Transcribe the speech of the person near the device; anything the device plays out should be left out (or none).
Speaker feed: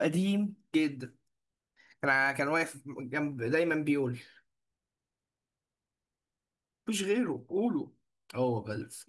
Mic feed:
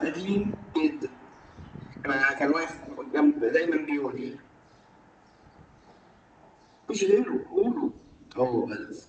none